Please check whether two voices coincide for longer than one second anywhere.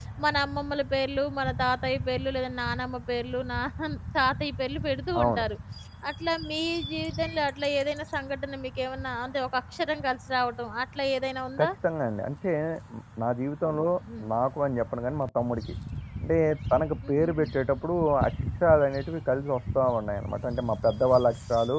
No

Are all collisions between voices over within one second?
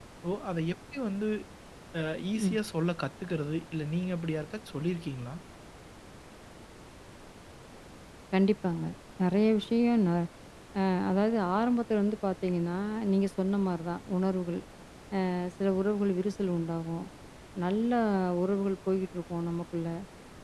Yes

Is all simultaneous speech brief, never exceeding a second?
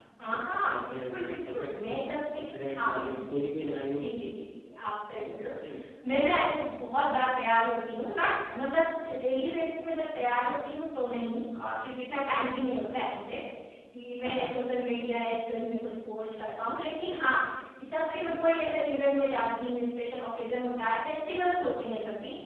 No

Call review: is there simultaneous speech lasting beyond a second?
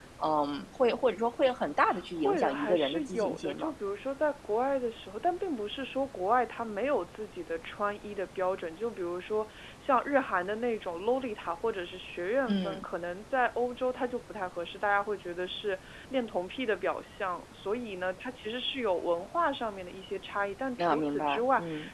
Yes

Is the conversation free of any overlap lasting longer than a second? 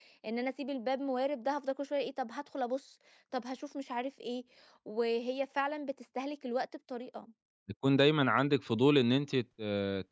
Yes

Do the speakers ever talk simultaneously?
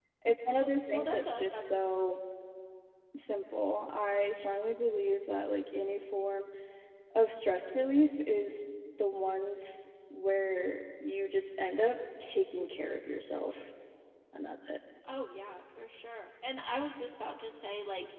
Yes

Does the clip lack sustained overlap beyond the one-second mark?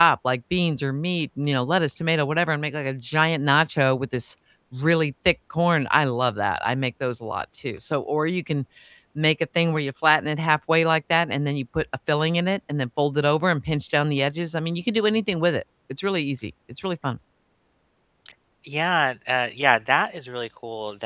Yes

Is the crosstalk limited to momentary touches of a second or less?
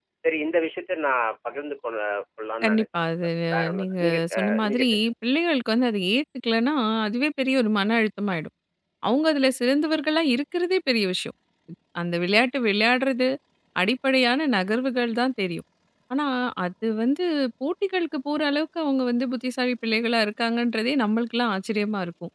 No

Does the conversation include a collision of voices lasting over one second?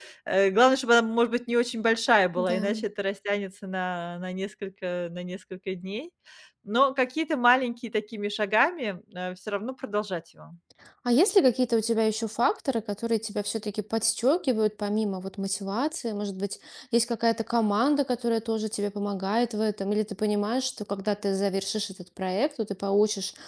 No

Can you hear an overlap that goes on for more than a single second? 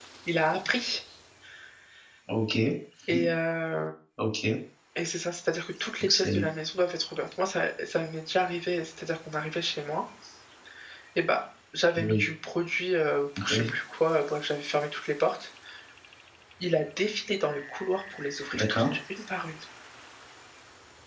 No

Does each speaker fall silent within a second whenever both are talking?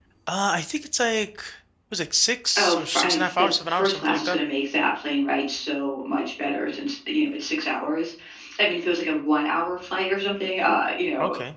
No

